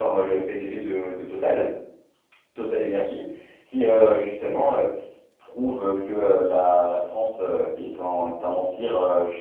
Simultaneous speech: No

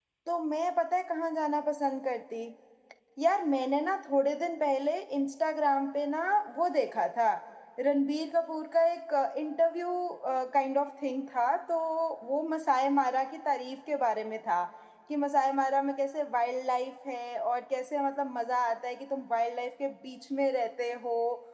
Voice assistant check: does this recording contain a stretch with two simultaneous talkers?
No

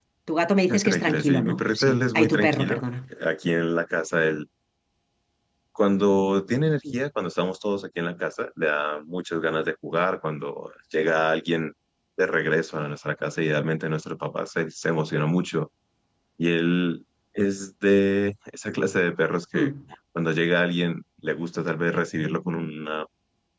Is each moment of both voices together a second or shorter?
No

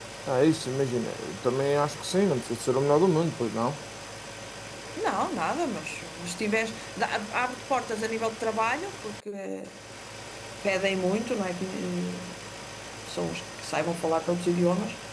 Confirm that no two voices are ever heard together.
Yes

